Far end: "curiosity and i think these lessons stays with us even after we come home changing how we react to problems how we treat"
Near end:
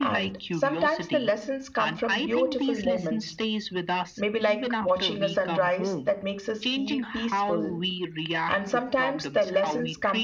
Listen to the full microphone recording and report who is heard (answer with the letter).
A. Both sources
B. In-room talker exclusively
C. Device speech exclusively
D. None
A